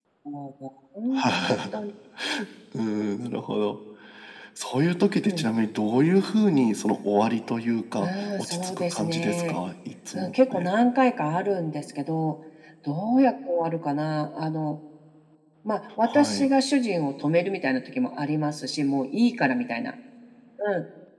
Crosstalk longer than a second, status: present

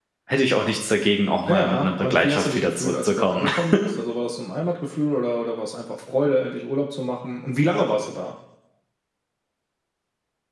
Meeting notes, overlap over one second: present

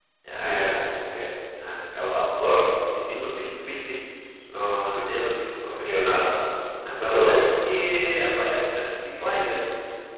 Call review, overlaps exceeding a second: none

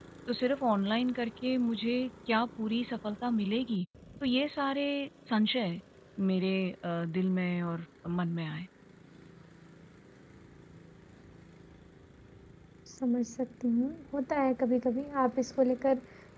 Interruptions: none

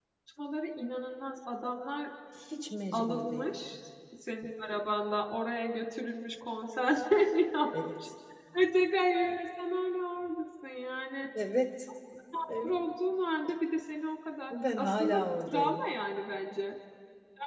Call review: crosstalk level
present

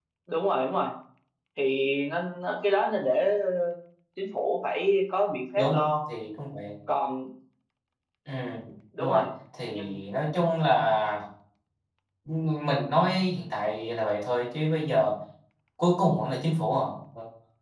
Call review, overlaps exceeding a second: none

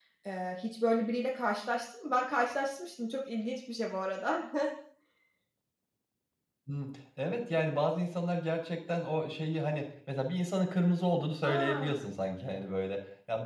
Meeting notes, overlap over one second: none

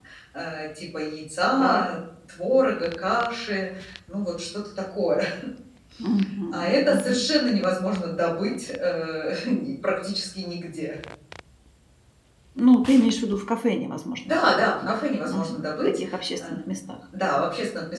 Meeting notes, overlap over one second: present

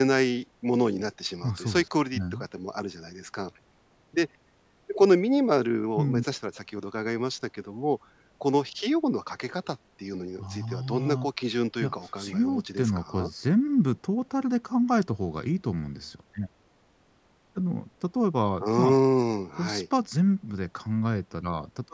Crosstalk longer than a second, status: present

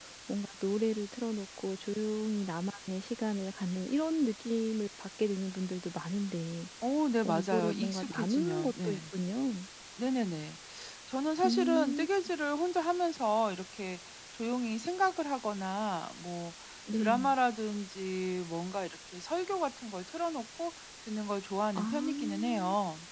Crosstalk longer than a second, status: present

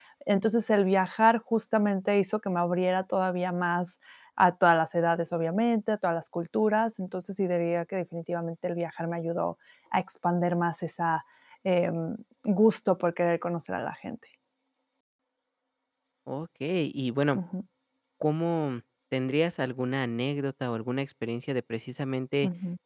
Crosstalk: none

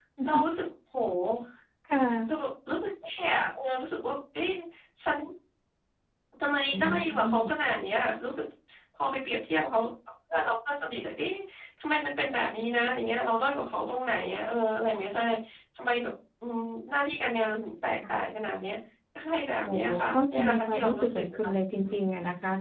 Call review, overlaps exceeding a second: present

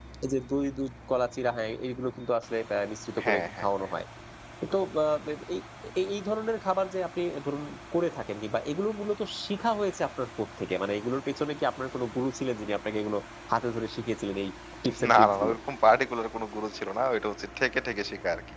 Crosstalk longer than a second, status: none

